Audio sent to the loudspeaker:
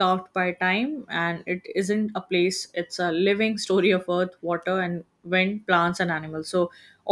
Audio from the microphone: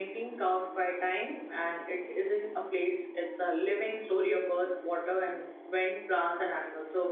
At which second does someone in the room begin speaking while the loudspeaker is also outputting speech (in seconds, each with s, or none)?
none